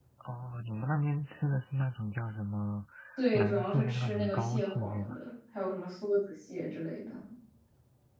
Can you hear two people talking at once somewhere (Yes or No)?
Yes